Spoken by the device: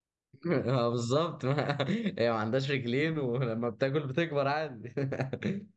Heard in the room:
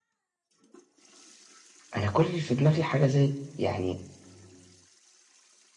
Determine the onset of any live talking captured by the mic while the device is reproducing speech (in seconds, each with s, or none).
1.9 s